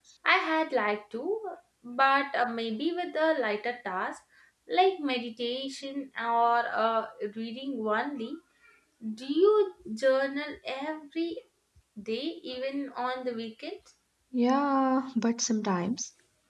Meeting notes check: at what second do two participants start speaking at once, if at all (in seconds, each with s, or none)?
none